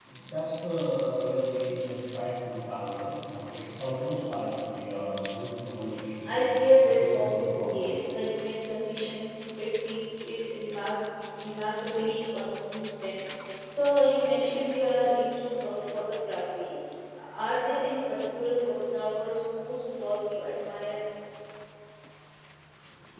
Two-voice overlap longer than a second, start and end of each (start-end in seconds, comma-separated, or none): 6.2-8.0